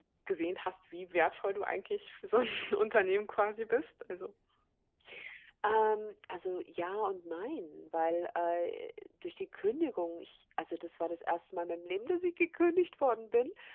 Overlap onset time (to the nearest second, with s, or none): none